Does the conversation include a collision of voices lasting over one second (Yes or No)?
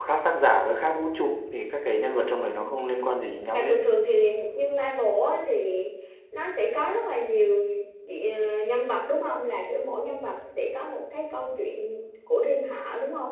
No